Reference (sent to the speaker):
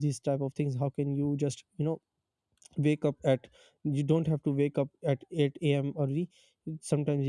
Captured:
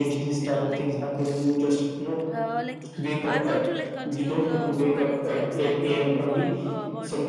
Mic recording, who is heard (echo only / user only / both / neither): both